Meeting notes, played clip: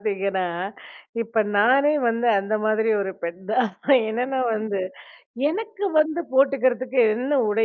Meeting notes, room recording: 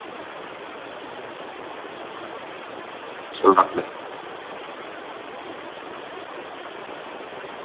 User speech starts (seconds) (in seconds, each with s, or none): 3.4 s